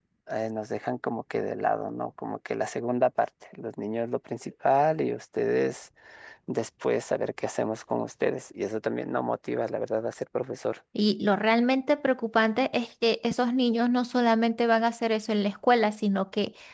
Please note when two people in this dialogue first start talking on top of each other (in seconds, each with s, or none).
none